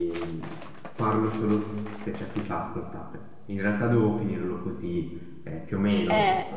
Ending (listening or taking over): listening